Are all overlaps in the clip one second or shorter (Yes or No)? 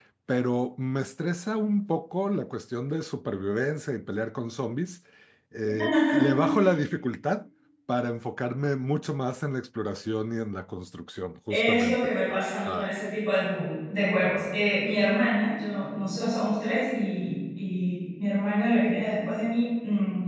No